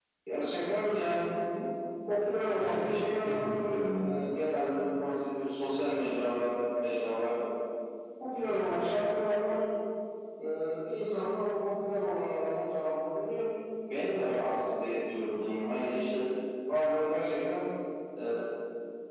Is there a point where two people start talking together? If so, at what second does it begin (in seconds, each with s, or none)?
2.6 s